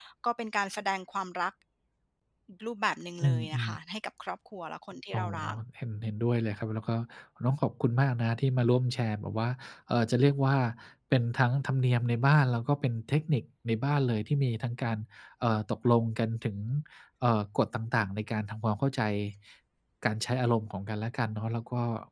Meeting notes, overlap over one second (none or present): none